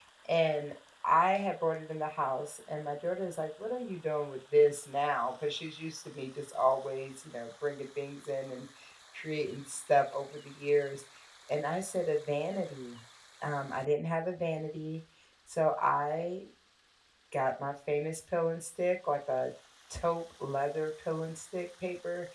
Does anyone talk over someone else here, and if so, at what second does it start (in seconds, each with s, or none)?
none